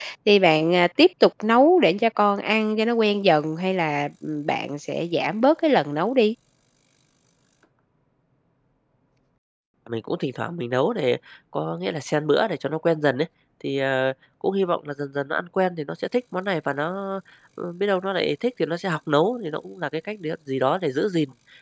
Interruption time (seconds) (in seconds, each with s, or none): none